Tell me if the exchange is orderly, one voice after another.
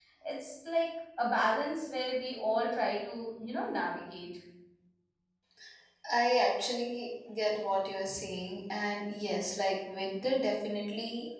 Yes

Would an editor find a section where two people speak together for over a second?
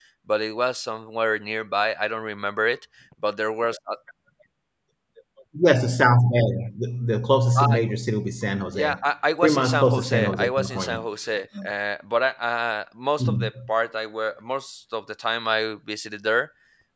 Yes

